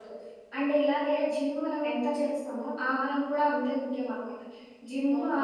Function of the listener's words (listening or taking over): listening